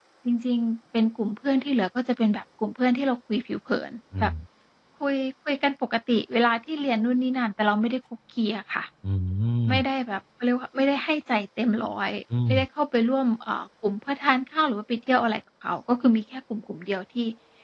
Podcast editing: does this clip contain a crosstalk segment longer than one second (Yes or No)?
No